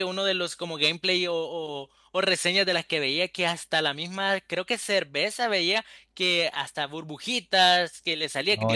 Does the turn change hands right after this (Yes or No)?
No